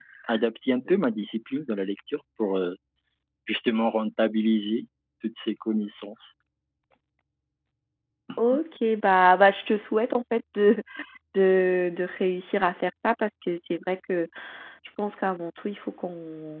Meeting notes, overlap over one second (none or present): none